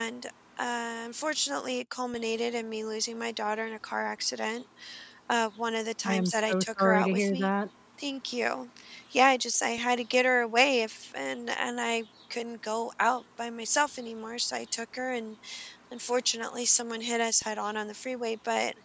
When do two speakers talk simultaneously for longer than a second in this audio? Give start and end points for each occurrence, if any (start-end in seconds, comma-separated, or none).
6.0-7.5